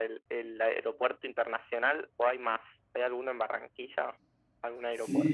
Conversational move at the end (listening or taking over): taking over